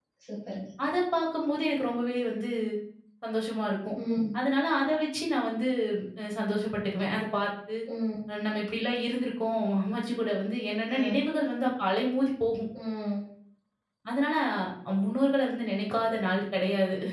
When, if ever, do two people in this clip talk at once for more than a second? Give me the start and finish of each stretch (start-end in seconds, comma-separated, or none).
none